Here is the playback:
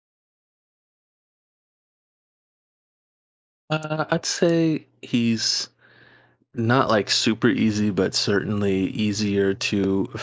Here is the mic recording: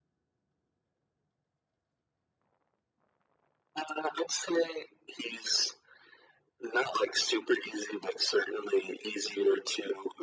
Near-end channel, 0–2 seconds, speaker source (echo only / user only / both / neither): neither